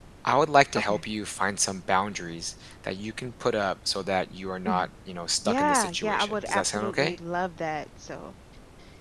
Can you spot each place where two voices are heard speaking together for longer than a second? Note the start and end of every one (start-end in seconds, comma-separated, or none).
5.4-7.2